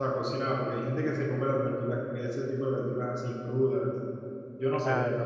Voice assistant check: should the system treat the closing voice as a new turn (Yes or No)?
Yes